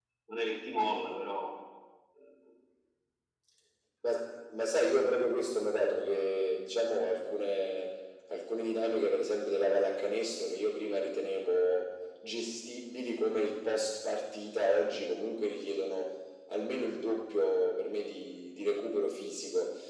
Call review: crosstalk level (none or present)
none